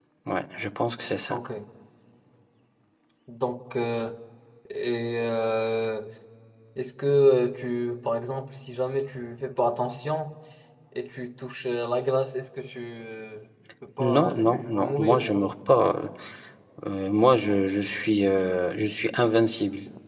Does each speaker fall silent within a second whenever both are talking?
No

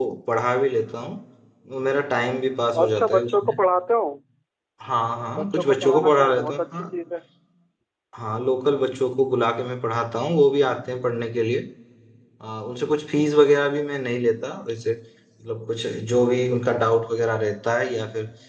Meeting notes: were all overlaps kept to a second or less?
No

